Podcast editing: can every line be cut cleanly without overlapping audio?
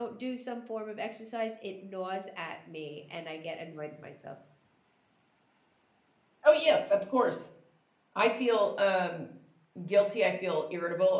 Yes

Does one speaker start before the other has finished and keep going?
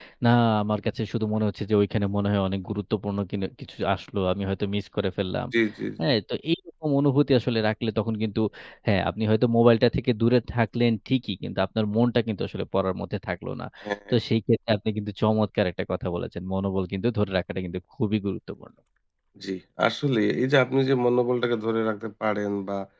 No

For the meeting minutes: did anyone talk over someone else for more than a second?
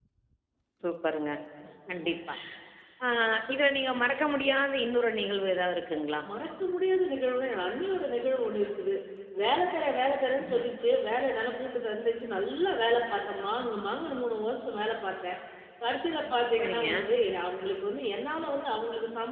No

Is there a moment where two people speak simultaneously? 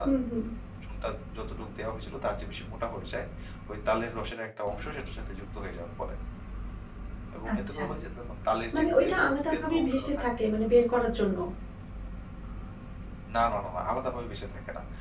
Yes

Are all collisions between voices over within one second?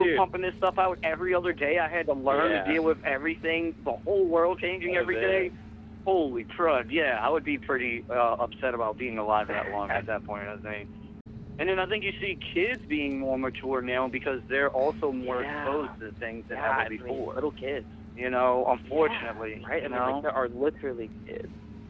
No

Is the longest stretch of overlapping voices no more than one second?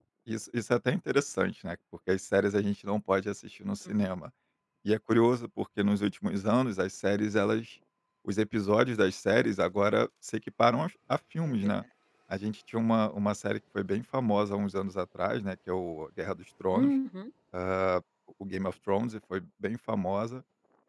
Yes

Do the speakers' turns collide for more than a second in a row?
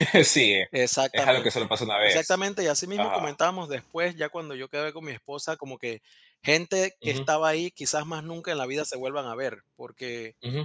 No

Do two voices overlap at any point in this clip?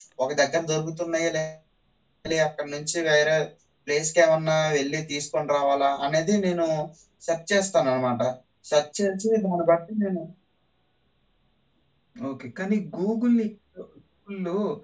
No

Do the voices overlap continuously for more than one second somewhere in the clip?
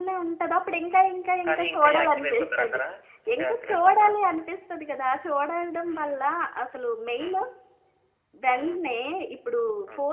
Yes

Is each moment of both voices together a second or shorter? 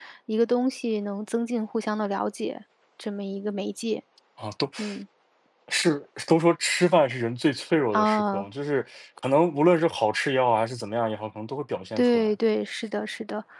Yes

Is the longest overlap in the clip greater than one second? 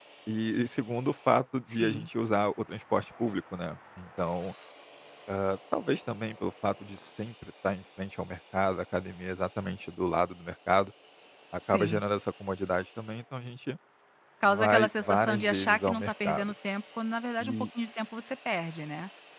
Yes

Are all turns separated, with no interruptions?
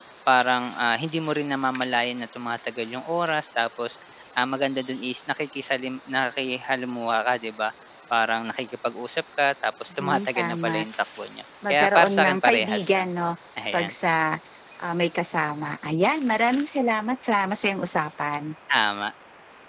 No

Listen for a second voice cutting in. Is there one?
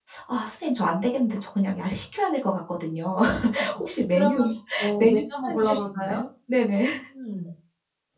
Yes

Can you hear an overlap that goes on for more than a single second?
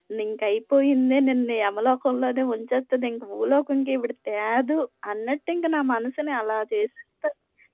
No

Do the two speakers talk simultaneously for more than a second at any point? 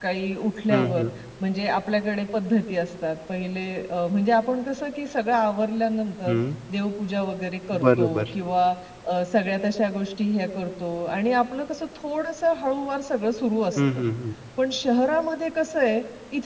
No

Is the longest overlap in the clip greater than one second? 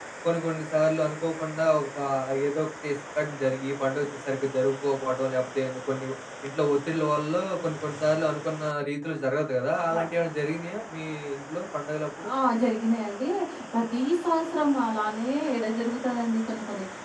No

